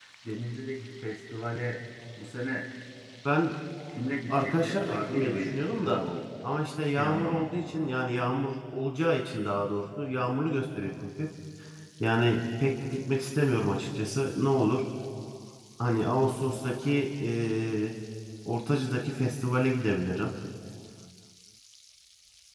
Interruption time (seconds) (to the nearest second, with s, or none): 4 s